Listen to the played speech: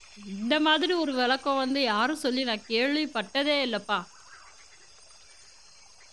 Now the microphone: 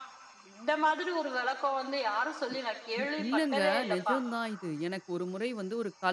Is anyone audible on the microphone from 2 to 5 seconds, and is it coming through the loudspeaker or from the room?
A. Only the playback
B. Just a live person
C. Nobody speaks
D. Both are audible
D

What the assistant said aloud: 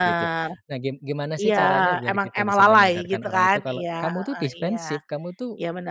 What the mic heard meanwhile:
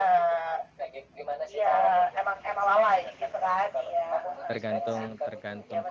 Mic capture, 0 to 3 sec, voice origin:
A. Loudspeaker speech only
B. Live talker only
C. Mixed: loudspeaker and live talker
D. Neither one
A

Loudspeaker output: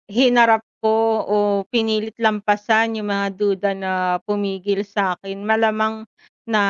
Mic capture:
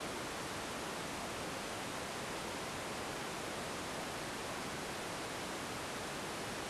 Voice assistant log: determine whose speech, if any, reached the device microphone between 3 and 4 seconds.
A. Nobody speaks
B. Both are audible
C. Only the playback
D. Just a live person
A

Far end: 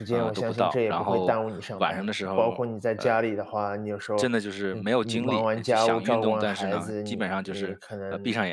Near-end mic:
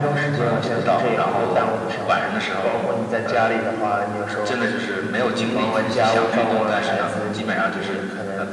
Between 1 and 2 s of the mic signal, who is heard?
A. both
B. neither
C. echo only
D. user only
C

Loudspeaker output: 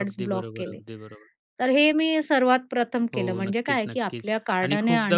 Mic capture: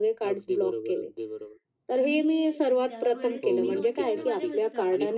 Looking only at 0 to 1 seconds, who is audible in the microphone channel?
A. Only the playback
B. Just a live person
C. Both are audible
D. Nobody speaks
A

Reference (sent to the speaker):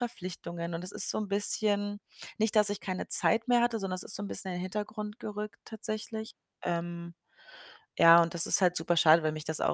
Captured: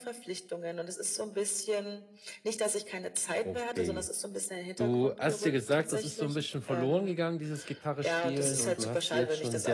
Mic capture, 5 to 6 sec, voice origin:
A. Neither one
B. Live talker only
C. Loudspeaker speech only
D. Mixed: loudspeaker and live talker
D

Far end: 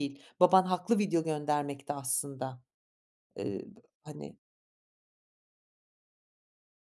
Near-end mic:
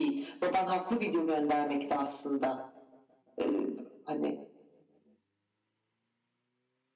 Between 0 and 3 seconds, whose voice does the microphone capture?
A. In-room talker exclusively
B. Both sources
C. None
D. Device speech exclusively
D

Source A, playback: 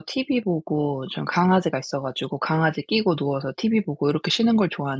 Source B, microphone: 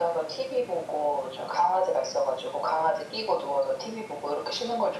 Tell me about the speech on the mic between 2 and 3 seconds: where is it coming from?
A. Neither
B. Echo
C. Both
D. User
B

